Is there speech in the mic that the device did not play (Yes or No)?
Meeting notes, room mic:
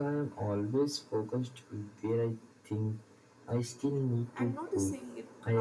Yes